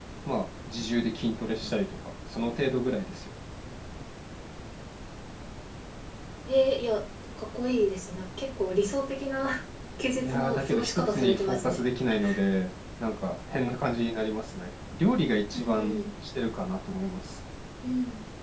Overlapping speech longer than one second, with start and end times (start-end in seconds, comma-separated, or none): 10.2-11.8